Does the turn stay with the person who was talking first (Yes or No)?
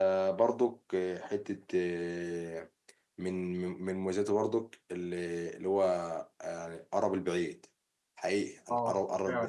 Yes